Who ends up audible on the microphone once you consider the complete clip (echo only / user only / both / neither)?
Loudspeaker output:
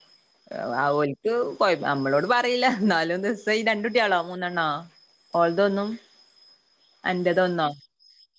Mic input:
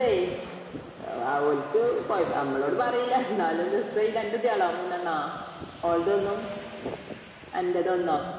echo only